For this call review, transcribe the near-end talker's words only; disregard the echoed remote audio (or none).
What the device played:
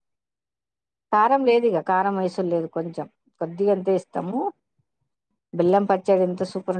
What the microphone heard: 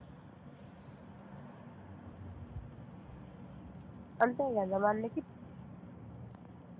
అంతాే కదా మ అన్ని